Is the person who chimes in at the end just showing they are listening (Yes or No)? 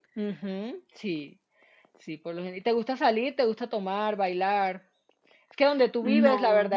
Yes